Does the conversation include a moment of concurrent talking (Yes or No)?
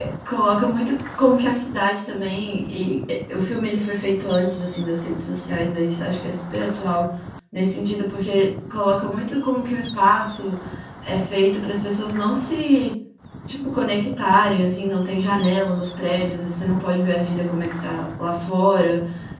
No